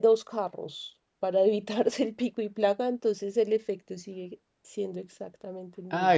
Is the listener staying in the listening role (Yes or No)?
No